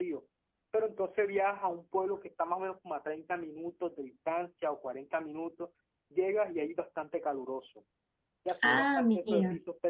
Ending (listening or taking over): listening